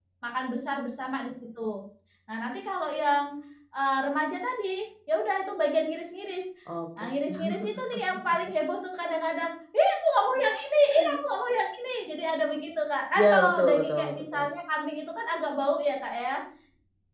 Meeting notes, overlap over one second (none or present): present